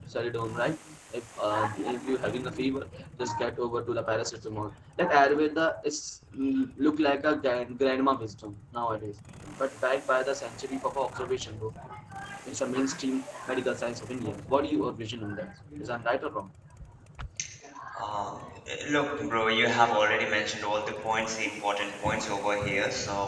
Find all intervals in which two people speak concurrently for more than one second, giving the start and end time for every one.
none

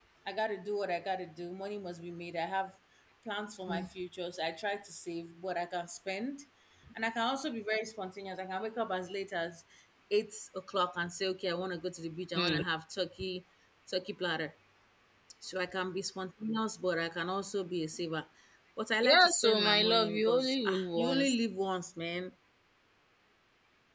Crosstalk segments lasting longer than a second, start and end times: 19.0-21.4

